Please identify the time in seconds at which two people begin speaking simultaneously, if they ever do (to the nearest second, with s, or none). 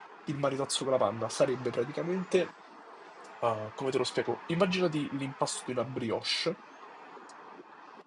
none